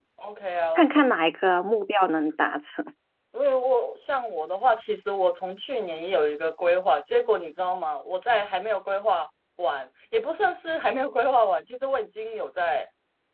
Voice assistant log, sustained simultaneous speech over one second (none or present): none